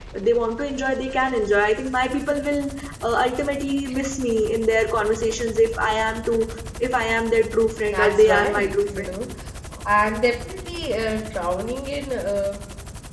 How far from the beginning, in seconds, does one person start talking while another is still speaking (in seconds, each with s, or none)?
7.9 s